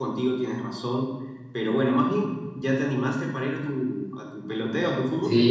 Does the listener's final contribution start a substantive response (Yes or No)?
Yes